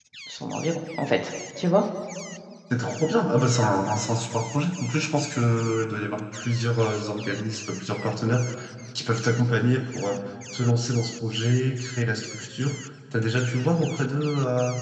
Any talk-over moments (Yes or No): No